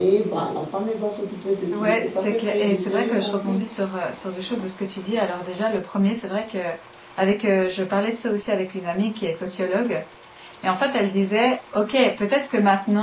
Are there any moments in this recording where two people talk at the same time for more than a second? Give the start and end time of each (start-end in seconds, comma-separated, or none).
1.7-3.7